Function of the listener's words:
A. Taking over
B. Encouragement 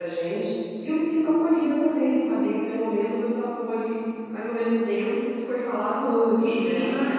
A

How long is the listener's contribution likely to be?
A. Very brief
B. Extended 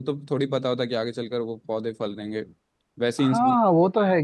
B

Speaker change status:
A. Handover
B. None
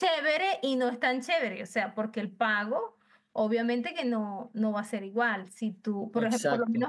B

